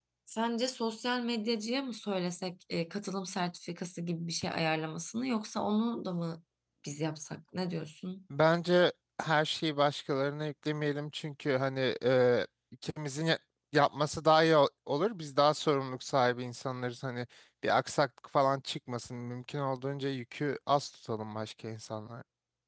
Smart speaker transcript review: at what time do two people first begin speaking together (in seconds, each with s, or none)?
none